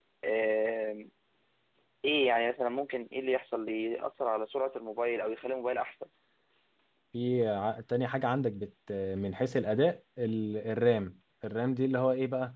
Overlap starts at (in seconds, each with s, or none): none